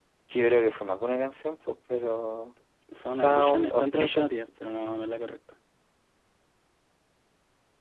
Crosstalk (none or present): present